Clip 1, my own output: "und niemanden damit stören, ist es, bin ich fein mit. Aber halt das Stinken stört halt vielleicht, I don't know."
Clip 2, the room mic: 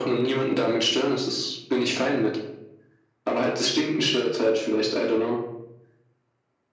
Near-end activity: none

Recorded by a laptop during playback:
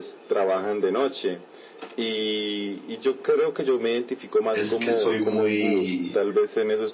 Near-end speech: present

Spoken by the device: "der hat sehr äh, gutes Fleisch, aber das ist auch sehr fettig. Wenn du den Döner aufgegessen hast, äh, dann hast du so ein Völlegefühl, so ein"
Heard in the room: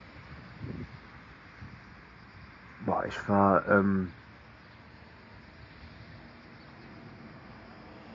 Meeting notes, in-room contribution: present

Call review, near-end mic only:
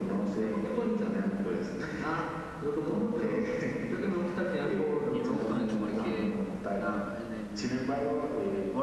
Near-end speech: present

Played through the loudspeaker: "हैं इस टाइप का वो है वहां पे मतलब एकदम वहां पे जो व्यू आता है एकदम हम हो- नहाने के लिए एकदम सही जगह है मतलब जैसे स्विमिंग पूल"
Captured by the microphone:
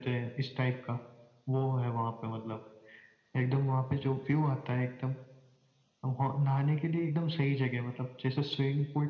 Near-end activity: none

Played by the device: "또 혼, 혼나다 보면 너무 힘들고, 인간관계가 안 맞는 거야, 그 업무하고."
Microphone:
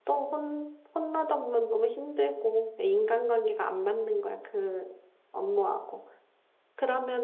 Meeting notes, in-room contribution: none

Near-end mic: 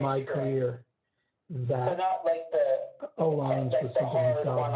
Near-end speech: present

